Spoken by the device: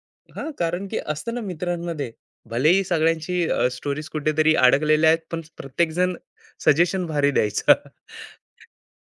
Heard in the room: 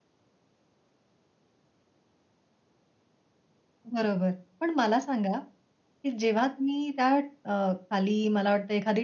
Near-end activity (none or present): present